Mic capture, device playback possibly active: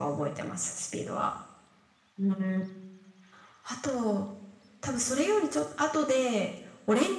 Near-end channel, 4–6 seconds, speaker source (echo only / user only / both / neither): echo only